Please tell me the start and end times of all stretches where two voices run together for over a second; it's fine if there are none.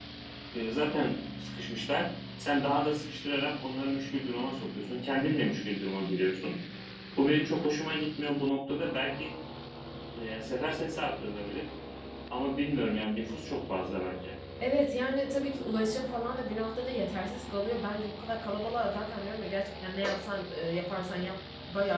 none

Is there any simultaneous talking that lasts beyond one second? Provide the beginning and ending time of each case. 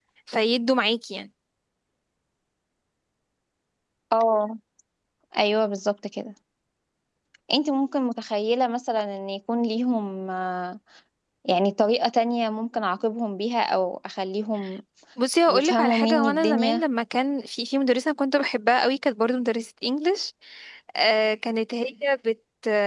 15.5-16.8

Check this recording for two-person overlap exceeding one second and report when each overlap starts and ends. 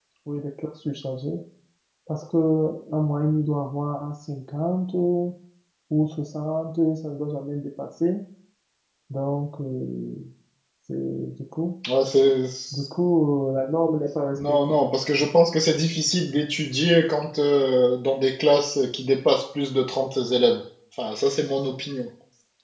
none

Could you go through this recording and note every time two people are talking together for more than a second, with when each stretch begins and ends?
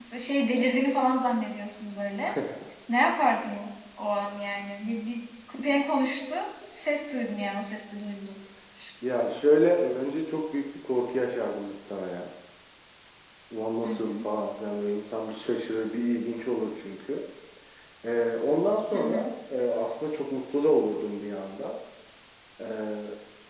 none

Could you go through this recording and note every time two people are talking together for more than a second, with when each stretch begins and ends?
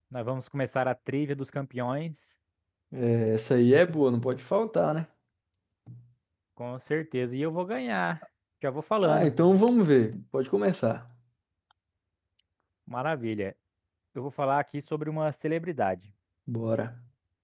none

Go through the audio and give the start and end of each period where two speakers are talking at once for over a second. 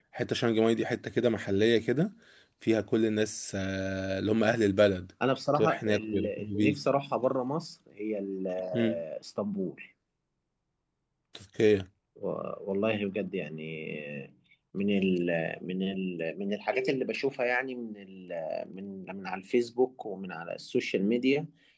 5.5-6.8

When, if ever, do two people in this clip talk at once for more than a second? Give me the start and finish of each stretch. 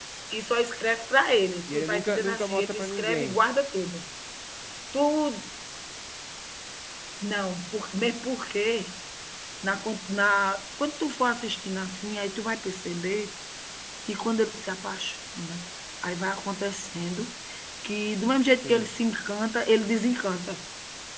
1.7-3.4

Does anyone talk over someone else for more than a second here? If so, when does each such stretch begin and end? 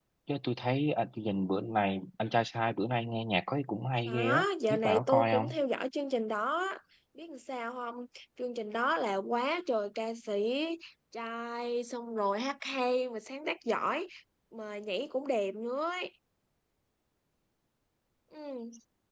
4.1-5.6

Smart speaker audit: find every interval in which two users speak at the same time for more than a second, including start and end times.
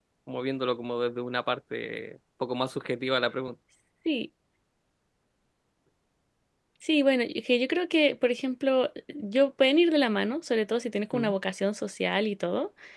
none

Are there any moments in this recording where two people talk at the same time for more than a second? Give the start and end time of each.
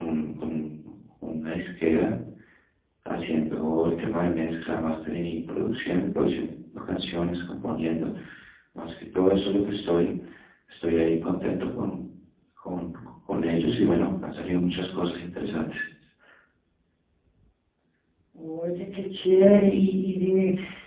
none

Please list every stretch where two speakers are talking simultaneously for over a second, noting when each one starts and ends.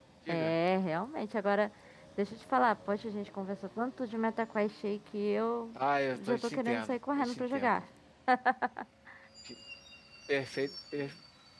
6.1-7.8

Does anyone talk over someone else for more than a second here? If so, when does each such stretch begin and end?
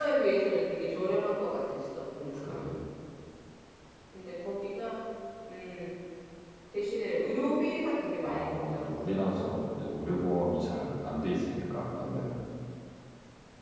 8.2-9.5

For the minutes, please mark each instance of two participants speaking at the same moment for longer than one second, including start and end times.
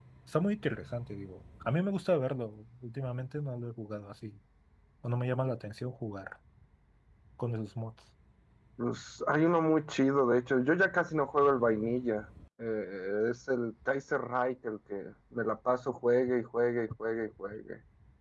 none

